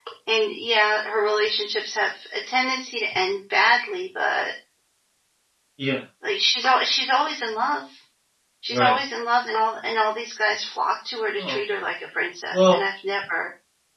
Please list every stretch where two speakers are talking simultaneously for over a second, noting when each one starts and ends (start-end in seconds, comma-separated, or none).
none